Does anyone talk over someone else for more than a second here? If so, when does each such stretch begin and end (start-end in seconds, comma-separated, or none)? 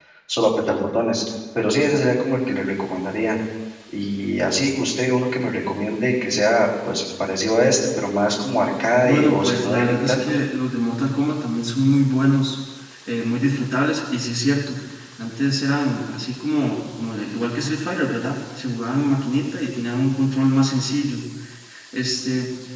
9.0-10.3